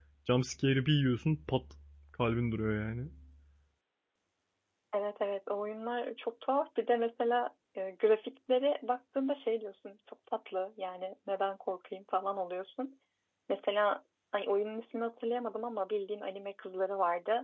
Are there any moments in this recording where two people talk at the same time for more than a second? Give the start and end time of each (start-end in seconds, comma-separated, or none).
none